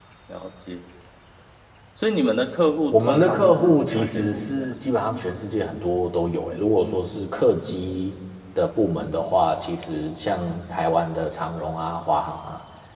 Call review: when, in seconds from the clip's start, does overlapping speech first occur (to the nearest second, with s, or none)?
3 s